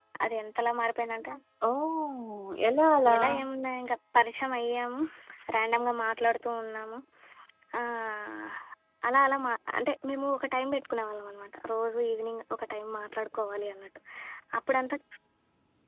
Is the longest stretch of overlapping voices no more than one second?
Yes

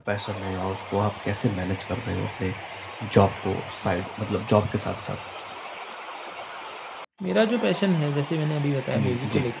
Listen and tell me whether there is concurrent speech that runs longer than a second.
No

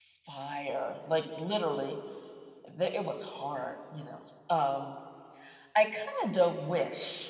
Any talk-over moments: No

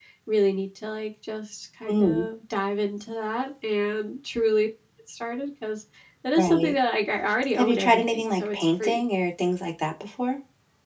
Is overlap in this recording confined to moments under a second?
No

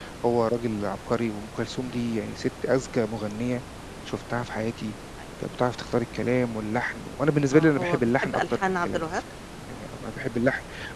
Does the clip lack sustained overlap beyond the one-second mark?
No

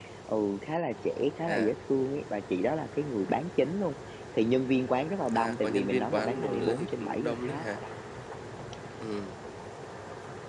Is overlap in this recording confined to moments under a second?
No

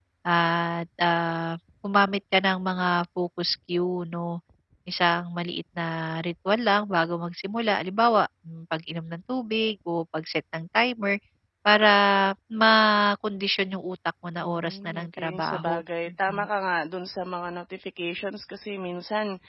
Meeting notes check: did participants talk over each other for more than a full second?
Yes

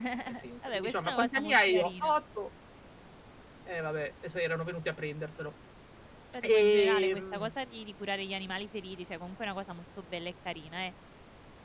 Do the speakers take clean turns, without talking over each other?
No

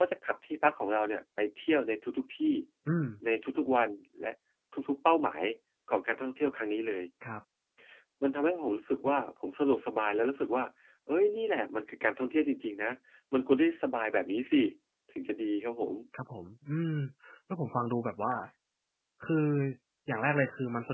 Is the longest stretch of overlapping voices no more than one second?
Yes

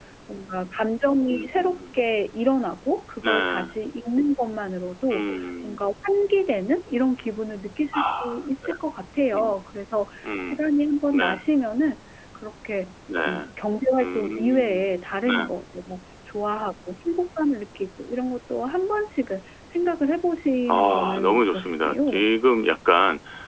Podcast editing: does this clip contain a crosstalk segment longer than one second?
Yes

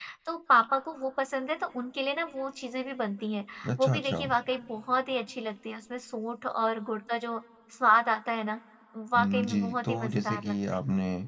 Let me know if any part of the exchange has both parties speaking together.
Yes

